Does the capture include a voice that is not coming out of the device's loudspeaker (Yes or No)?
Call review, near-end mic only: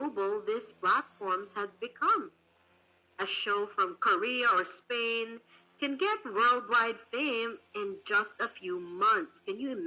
No